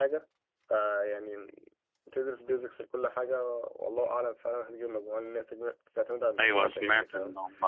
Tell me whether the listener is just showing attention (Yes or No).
No